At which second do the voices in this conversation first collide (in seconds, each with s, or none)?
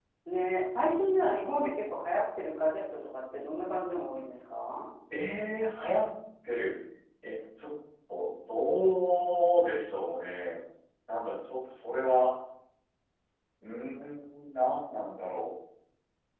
none